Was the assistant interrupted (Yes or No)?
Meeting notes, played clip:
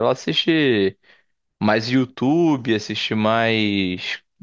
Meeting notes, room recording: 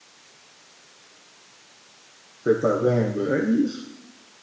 Yes